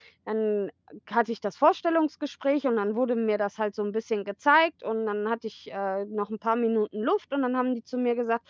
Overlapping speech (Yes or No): No